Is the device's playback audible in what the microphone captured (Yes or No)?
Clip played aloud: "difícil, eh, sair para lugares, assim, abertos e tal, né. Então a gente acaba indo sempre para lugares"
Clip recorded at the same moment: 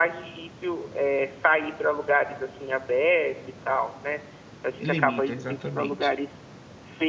Yes